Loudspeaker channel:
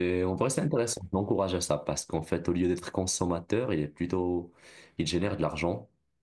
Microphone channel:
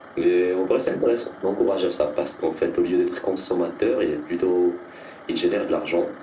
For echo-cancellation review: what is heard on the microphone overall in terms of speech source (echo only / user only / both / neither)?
echo only